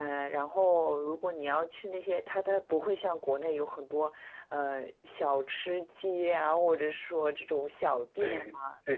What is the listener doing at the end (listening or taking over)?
taking over